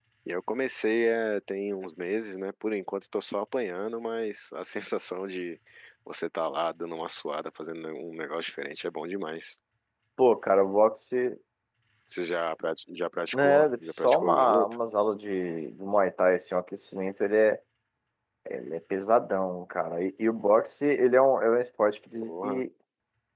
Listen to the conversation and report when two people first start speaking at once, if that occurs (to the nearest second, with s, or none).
13 s